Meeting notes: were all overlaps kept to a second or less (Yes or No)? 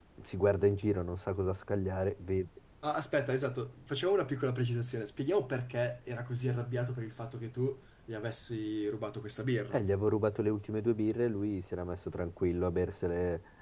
Yes